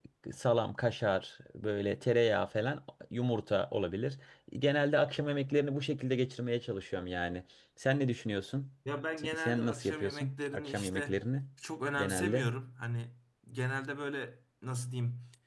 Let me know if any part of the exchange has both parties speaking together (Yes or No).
Yes